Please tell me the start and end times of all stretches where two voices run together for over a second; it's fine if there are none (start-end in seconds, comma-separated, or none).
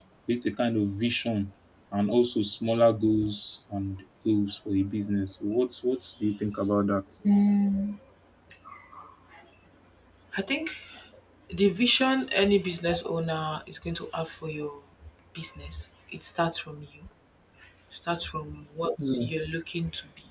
none